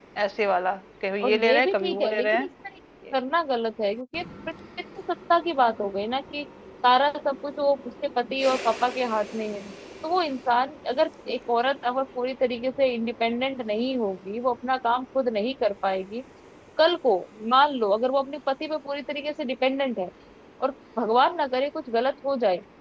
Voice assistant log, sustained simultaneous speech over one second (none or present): present